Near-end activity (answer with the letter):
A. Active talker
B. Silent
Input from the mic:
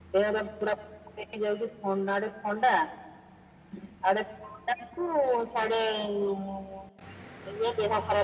B